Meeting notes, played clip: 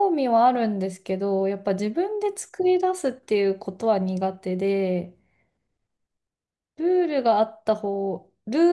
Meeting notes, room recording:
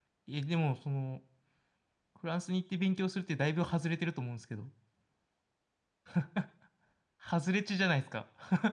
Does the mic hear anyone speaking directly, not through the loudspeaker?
Yes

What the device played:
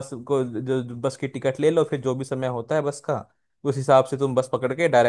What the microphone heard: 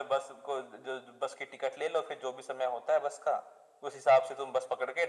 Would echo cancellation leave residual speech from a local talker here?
No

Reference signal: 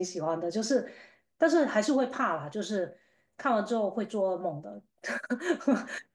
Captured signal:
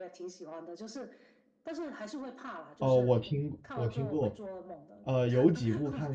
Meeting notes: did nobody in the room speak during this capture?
No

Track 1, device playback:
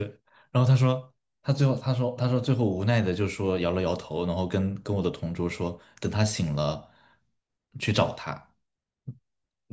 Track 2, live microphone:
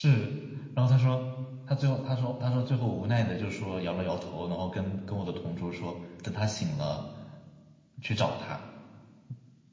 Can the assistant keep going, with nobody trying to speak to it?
Yes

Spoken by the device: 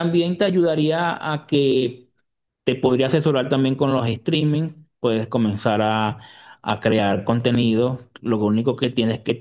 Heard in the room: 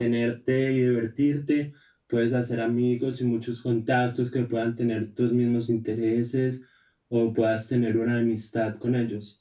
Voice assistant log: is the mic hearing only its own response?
No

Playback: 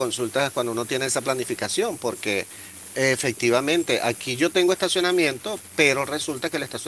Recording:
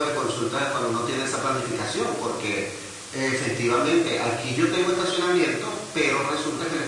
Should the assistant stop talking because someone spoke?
No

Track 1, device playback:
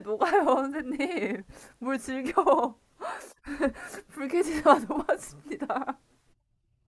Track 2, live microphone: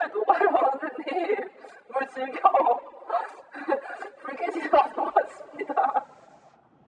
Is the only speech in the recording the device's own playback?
Yes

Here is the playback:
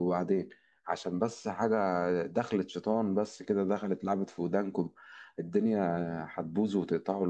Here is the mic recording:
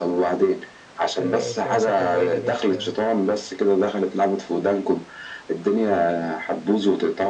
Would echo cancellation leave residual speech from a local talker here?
Yes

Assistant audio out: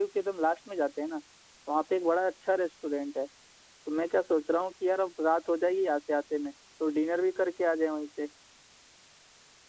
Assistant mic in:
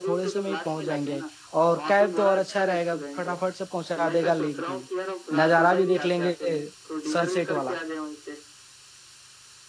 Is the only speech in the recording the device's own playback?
No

